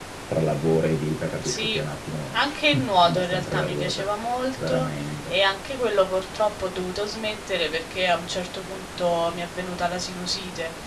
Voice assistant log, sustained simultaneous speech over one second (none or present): present